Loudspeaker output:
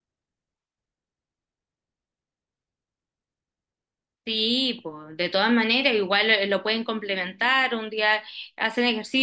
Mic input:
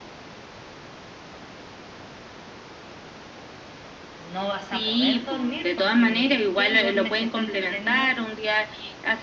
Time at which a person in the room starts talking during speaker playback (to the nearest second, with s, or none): 4 s